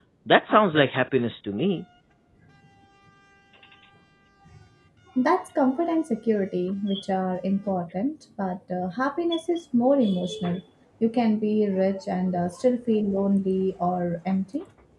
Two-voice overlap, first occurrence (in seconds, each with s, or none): none